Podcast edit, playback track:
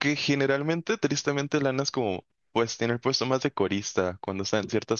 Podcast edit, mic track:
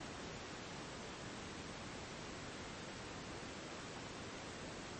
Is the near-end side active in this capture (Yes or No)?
No